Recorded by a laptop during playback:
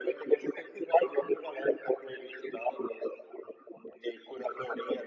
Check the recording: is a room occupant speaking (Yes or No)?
No